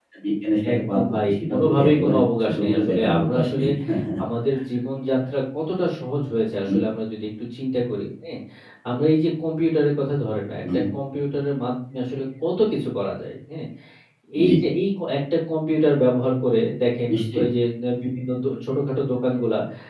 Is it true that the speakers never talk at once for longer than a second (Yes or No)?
No